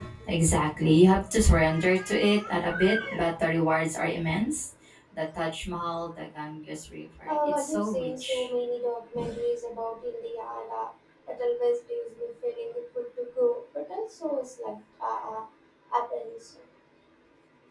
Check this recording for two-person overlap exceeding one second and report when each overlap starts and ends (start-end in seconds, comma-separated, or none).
7.2-8.5